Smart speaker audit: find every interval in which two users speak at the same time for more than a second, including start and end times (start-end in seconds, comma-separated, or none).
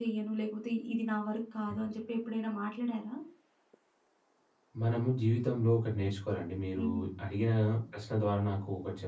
none